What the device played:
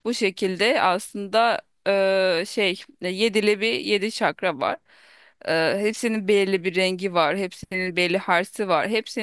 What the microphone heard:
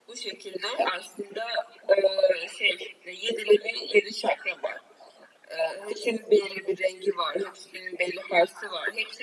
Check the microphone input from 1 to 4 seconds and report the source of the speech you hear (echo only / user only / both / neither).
echo only